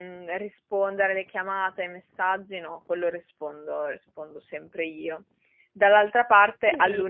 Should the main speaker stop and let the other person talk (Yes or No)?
No